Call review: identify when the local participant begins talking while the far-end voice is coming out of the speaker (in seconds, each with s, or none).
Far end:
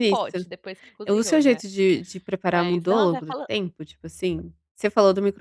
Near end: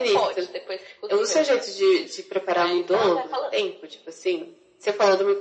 none